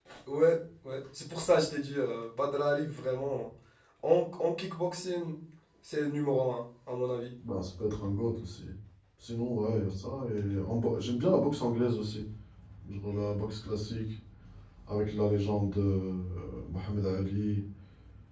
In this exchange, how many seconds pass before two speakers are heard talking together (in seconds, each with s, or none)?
none